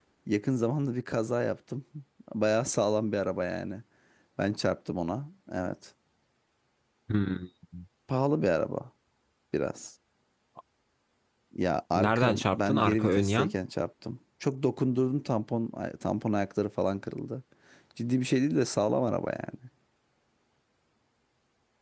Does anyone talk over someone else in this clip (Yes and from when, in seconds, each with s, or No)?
Yes, from 12.0 s